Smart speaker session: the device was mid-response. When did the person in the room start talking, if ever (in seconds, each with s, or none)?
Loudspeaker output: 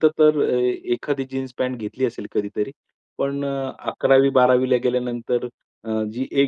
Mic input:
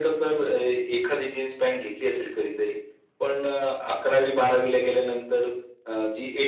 none